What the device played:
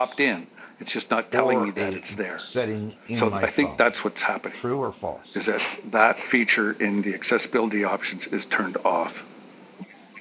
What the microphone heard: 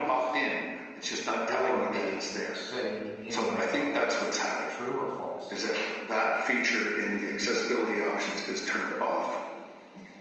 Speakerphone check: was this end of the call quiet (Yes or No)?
Yes